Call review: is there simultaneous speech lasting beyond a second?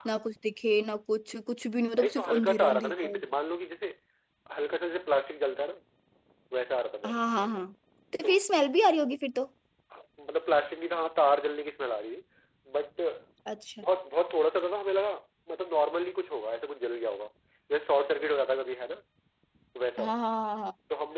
Yes, from 2.0 s

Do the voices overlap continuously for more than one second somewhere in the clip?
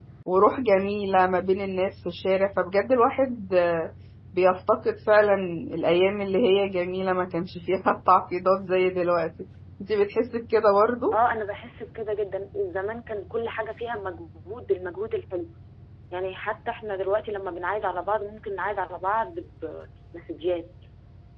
No

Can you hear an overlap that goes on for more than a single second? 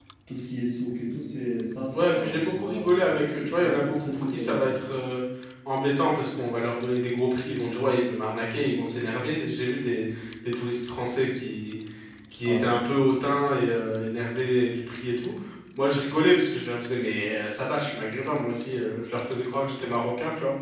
Yes, from 1.9 s

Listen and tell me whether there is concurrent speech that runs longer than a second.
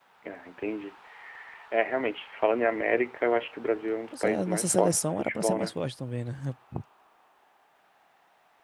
Yes, from 4.1 s

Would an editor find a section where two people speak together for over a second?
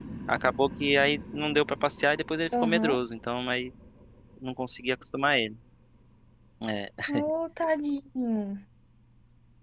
No

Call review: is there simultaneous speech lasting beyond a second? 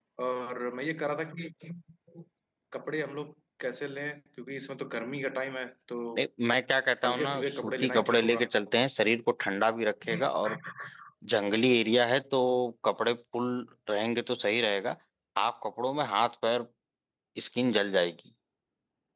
Yes, from 7.0 s

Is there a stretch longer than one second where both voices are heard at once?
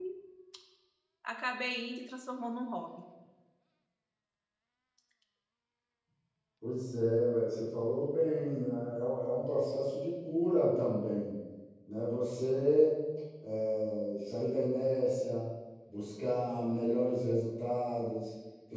No

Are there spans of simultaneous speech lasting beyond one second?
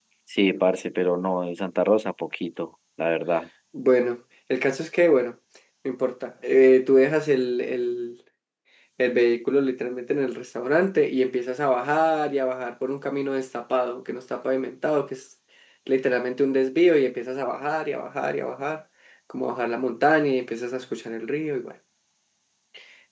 No

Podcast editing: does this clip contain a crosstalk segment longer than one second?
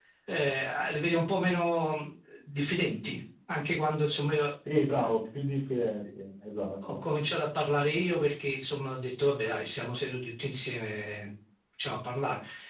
No

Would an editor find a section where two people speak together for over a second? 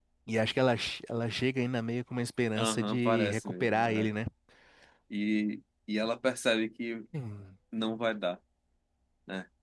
Yes, from 2.6 s

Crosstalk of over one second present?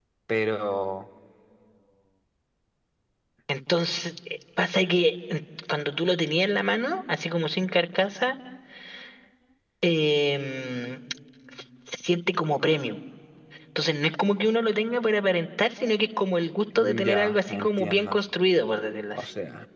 Yes, from 16.8 s

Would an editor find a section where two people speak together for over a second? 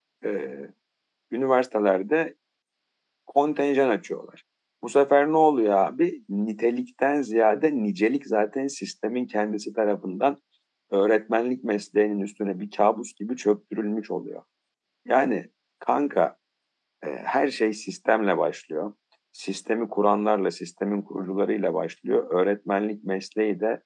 No

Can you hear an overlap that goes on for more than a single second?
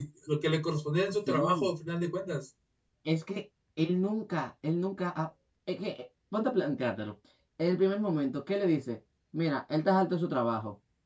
No

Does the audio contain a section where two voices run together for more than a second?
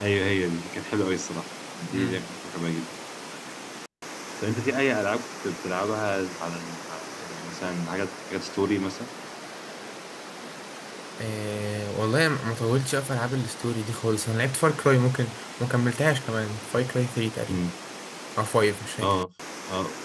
No

